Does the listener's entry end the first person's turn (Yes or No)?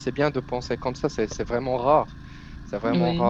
No